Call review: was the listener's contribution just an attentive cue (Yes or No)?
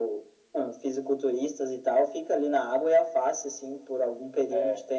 Yes